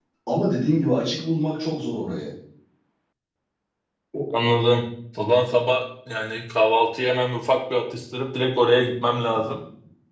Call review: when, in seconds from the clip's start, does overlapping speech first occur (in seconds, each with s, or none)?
none